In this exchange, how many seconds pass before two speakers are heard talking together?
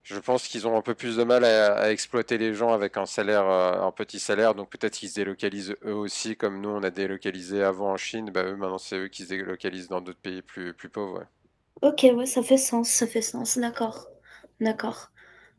none

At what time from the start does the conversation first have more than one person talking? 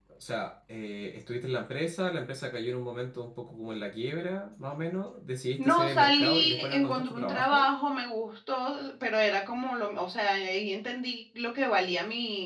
5.6 s

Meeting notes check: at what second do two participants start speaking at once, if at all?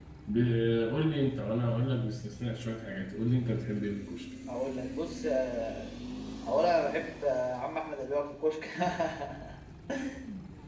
none

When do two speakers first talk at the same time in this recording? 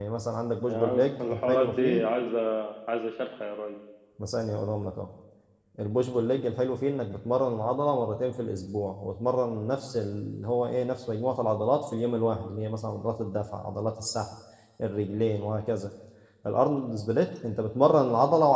0.7 s

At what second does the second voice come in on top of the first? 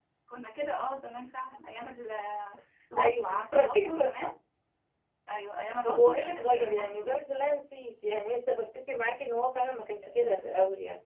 3.0 s

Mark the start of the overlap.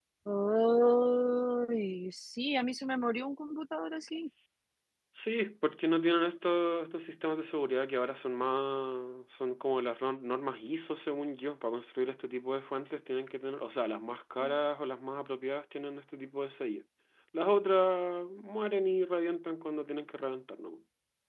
none

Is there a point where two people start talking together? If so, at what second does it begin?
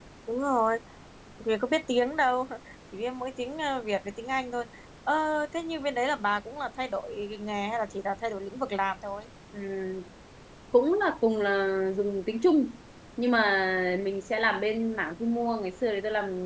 none

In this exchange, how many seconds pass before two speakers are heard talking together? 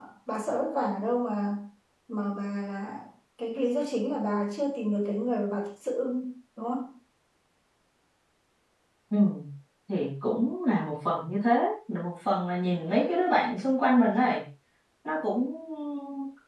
none

